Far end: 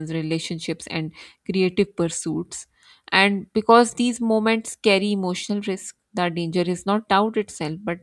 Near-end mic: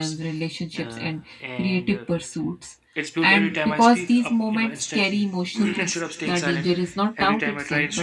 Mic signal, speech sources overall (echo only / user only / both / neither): both